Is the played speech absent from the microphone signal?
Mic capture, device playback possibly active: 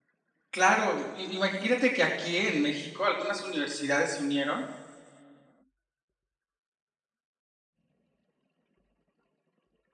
Yes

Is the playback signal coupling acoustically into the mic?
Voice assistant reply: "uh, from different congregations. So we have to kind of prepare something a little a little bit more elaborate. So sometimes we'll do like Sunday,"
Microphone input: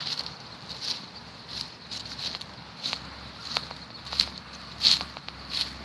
No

